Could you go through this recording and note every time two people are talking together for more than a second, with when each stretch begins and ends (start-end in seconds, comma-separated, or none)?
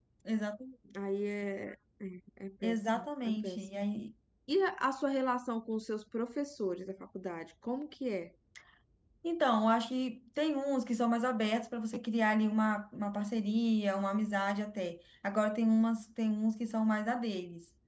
2.6-3.8